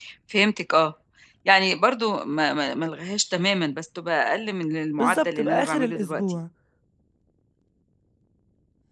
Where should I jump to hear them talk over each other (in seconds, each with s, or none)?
5.0 s